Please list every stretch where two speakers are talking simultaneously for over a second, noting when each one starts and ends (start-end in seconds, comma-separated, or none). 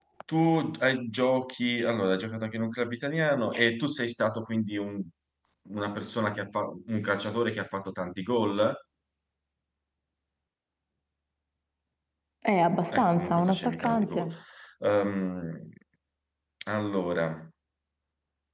12.9-14.3